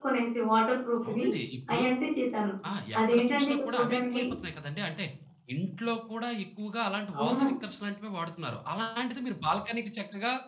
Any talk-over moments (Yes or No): Yes